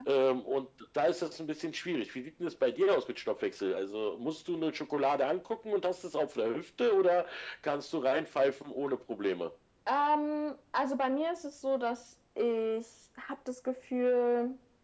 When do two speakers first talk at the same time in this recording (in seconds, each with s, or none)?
none